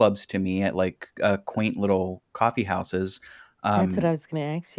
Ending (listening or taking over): taking over